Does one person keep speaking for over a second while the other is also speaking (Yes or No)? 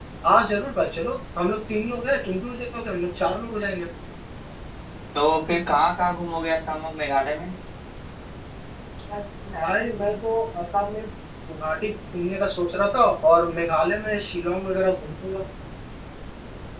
No